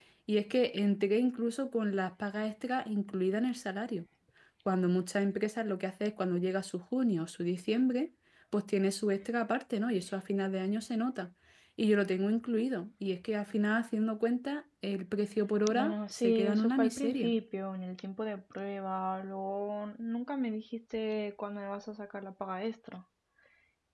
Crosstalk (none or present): present